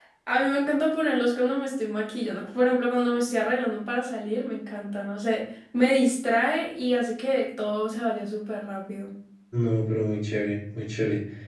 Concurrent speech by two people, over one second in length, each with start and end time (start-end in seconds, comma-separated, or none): none